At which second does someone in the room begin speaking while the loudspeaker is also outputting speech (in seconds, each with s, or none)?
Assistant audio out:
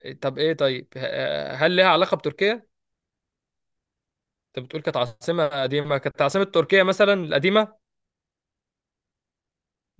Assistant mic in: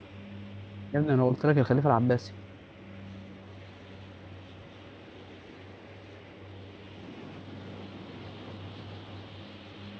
0.9 s